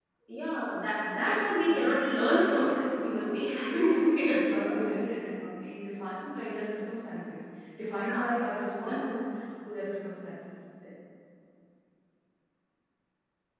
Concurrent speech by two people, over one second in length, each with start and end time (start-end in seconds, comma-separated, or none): 1.1-5.0